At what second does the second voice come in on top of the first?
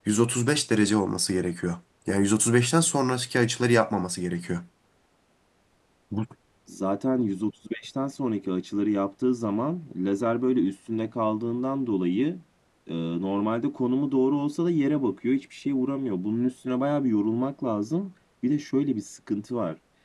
none

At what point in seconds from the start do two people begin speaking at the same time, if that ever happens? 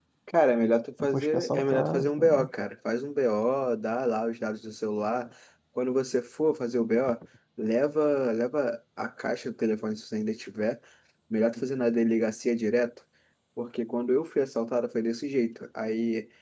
1.0 s

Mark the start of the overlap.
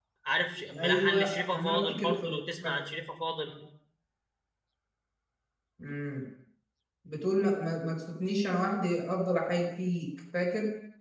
0.7 s

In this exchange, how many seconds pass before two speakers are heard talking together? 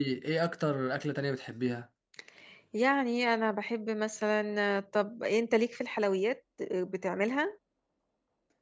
none

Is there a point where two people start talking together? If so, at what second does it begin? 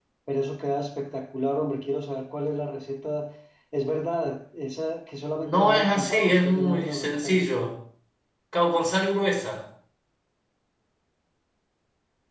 5.4 s

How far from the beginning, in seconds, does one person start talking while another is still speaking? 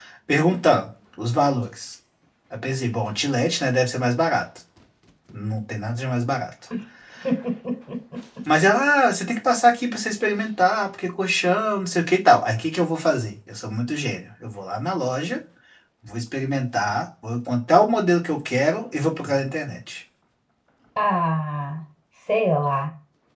none

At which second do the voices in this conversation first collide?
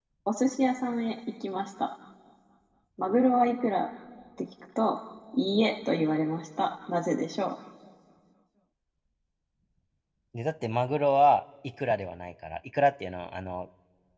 none

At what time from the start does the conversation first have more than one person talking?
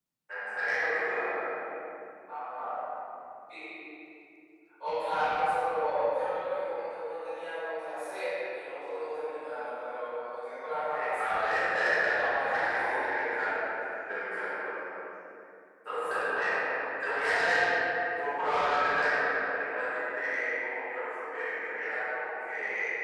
10.9 s

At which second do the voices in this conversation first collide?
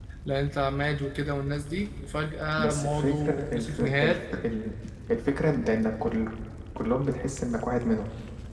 2.5 s

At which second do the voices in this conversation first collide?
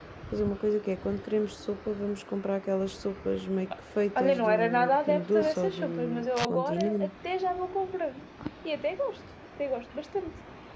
4.2 s

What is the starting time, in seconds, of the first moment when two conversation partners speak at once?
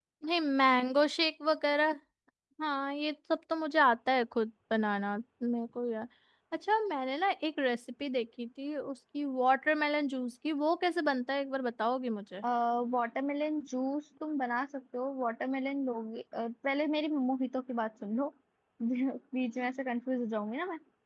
none

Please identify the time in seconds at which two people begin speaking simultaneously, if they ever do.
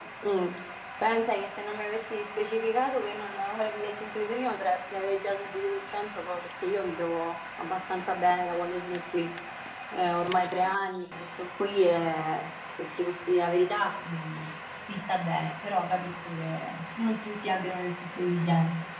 none

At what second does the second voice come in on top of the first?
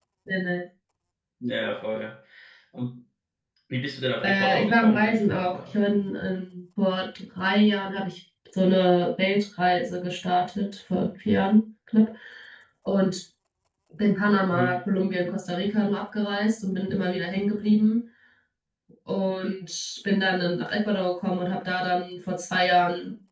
4.2 s

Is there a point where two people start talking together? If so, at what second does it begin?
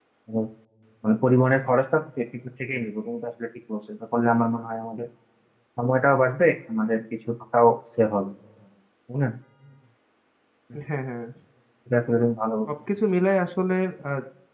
none

